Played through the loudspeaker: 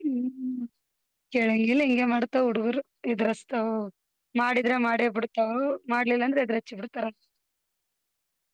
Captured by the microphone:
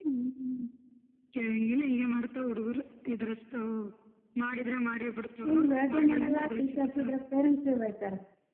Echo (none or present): present